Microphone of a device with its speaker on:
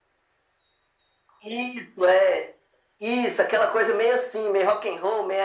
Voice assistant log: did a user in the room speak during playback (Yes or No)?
No